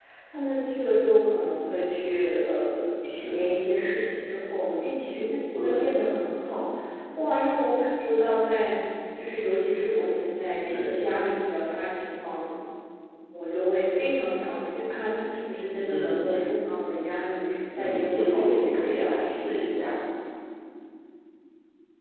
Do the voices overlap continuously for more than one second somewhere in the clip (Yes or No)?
Yes